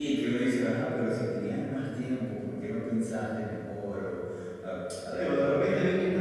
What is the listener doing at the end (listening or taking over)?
taking over